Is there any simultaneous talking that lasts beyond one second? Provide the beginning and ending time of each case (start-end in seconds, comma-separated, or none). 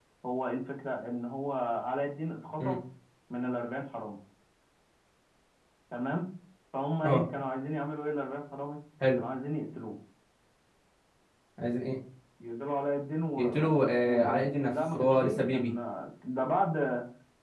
13.4-15.7